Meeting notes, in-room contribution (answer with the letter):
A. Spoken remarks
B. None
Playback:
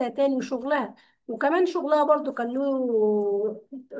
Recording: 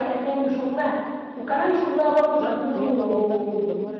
A